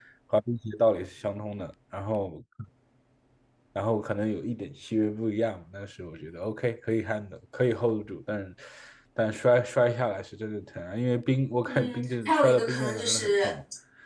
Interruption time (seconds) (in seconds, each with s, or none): 11.7 s